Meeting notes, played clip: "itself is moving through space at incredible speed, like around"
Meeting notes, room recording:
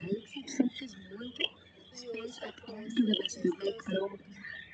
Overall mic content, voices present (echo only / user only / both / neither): both